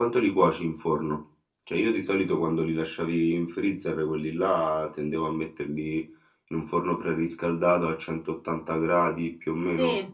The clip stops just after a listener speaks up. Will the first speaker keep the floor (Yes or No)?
No